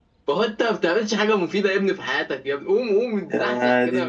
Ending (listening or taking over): listening